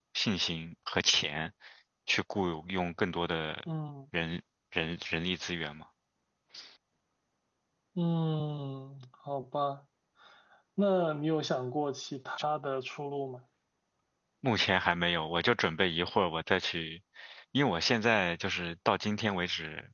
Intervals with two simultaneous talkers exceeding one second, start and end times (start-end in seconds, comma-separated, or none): none